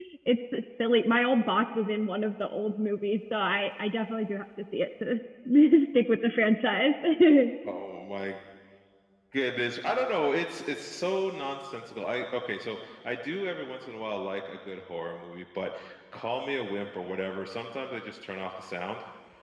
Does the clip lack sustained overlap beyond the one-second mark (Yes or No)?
Yes